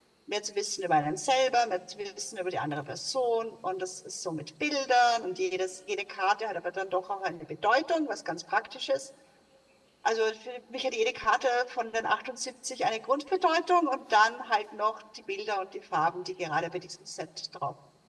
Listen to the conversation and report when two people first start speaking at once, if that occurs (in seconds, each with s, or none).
none